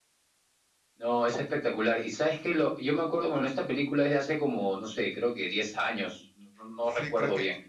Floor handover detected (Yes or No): Yes